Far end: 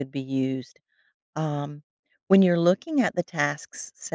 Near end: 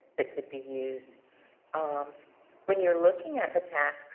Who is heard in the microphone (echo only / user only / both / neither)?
echo only